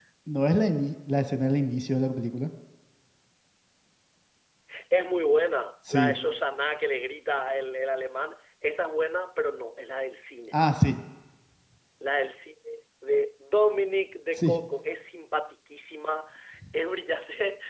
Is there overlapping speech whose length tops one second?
No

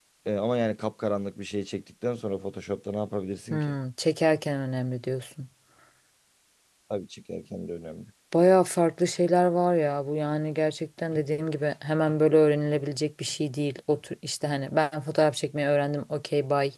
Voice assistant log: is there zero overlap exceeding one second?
Yes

